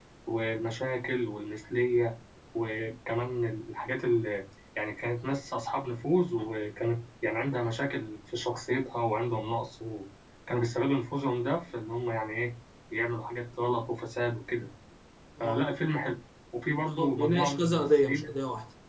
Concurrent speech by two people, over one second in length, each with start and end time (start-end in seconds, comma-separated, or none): 16.7-18.2